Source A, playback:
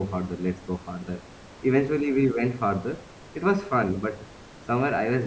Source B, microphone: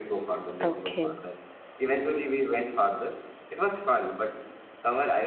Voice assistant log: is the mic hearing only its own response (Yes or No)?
No